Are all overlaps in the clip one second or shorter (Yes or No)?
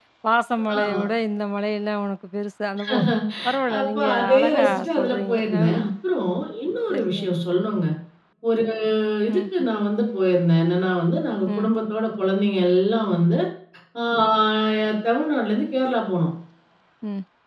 No